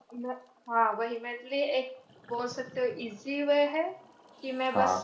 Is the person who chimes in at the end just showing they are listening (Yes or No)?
Yes